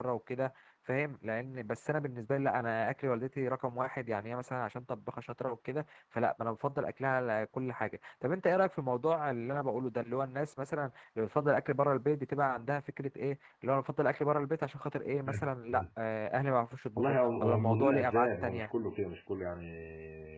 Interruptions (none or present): present